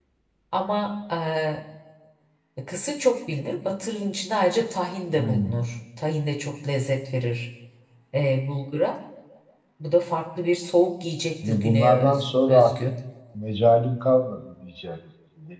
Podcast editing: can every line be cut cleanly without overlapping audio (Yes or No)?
No